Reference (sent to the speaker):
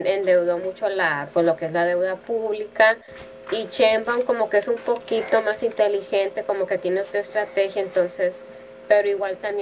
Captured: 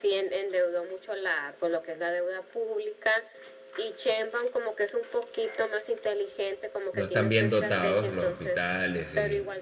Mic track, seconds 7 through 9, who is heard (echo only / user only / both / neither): both